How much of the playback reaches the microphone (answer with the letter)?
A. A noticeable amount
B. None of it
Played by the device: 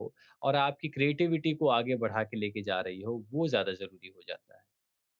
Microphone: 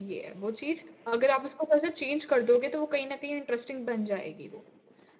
B